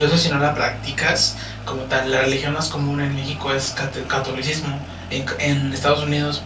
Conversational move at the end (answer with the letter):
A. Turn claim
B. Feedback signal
B